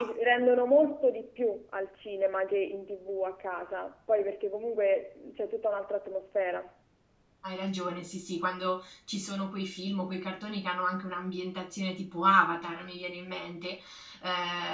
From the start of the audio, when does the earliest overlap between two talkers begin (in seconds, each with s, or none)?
none